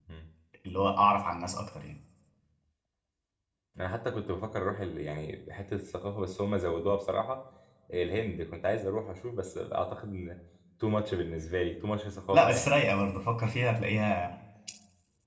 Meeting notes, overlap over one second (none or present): none